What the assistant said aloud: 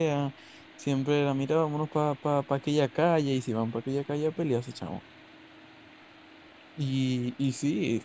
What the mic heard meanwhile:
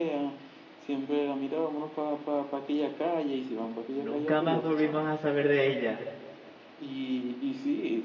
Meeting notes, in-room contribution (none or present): present